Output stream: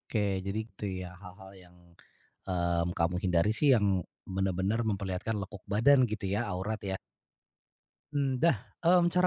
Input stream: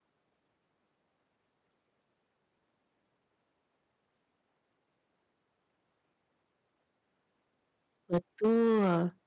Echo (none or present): none